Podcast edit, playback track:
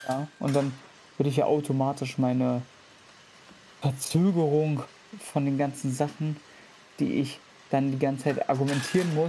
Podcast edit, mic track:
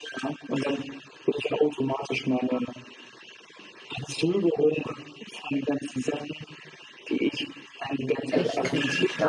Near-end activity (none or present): present